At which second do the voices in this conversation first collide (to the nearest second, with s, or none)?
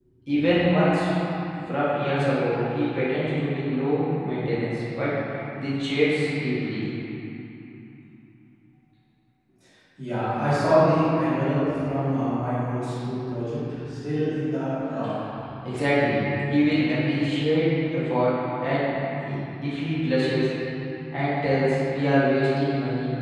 none